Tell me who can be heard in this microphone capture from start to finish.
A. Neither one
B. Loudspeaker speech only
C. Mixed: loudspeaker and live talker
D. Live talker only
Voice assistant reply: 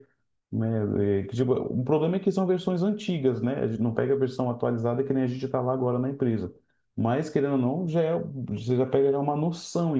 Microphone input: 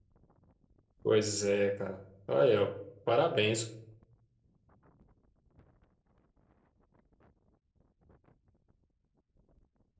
D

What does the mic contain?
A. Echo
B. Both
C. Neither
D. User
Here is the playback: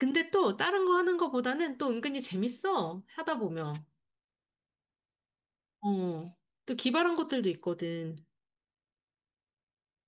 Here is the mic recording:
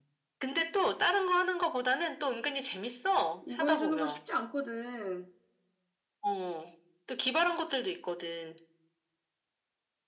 B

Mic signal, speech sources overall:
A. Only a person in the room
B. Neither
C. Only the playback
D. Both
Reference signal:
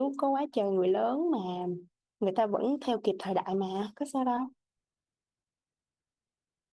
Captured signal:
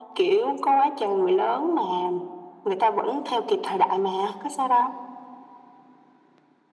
C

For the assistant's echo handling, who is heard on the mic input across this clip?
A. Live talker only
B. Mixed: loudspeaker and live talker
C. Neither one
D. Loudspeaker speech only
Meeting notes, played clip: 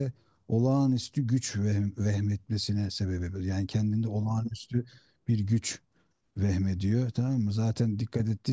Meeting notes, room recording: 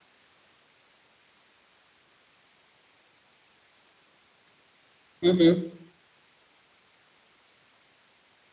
A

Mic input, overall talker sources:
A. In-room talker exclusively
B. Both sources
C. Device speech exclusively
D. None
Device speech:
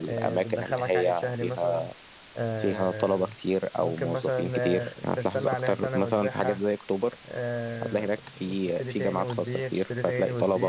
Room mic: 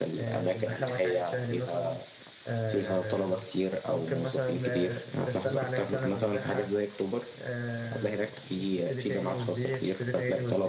C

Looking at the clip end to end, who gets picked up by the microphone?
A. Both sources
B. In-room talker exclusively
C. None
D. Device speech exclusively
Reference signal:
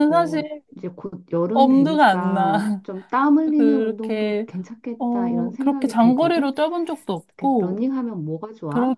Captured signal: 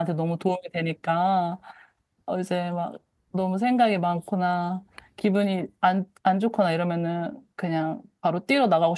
B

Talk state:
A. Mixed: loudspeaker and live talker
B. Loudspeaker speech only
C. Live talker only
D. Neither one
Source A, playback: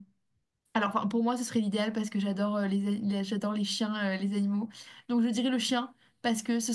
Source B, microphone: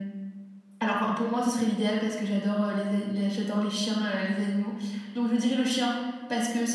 B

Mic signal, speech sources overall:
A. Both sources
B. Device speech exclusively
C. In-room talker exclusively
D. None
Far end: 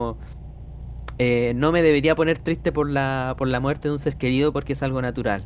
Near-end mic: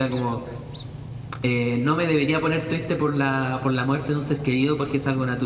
B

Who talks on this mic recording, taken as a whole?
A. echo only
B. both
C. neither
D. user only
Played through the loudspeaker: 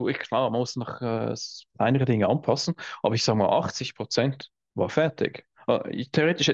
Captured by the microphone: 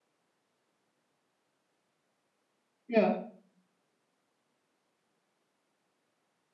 D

